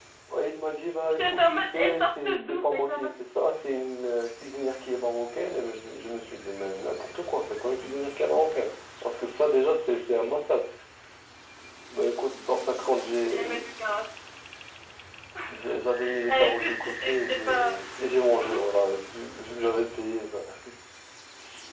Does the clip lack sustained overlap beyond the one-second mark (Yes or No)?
No